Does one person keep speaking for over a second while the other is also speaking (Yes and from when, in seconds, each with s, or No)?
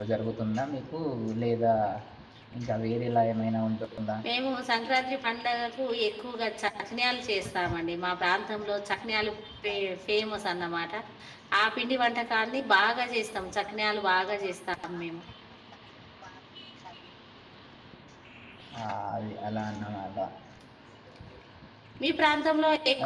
No